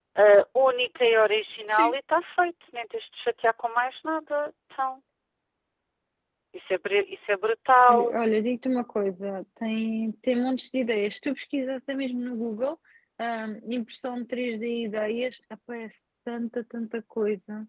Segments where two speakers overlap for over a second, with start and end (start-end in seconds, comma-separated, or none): none